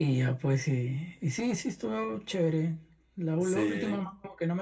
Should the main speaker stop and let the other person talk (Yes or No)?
No